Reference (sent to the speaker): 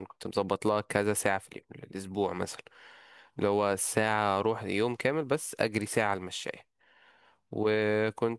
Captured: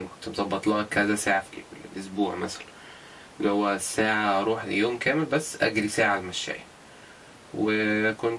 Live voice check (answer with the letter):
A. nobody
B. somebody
A